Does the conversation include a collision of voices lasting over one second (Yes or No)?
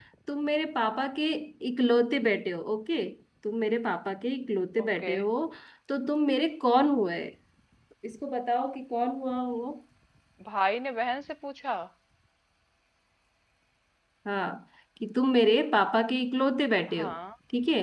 No